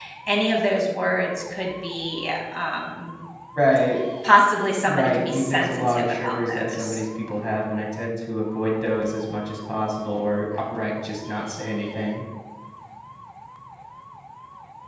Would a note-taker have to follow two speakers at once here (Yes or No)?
Yes